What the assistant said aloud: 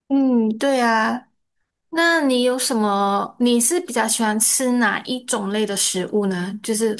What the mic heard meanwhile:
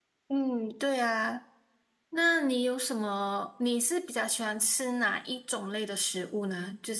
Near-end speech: none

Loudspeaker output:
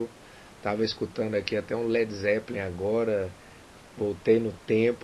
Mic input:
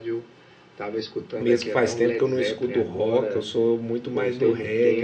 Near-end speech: present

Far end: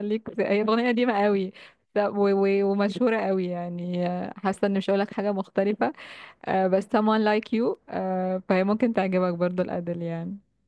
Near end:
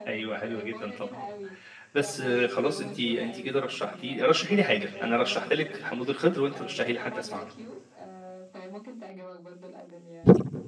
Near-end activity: present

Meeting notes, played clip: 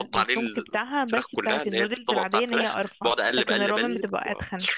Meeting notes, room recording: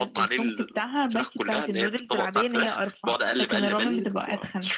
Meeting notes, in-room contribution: none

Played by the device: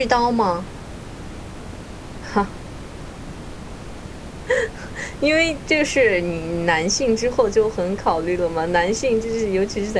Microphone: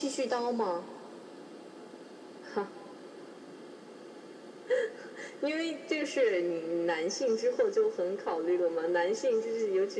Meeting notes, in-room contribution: none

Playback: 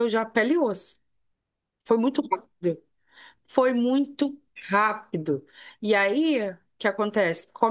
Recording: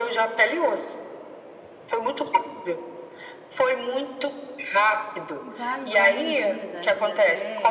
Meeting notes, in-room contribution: present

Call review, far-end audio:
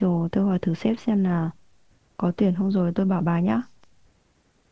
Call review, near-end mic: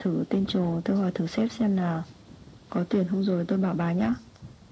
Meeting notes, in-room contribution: none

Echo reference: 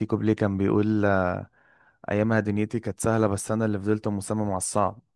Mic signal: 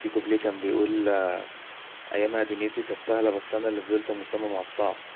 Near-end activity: none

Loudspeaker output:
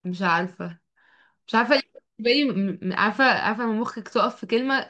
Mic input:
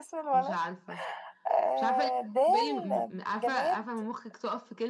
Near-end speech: present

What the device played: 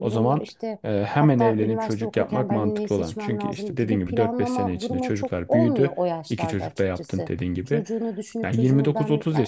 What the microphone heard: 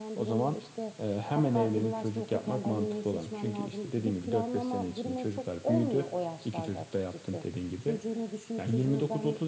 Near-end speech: none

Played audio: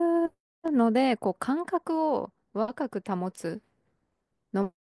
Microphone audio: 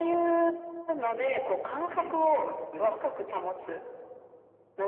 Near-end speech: present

